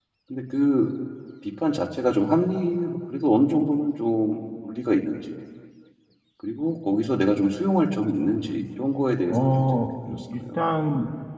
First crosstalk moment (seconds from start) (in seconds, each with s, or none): 9.3 s